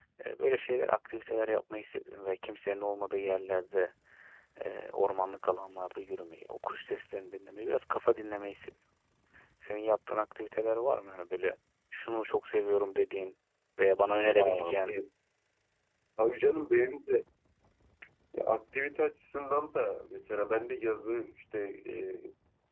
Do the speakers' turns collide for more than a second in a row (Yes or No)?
No